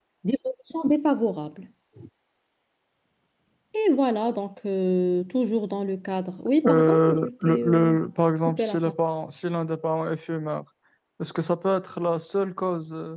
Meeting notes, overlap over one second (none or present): present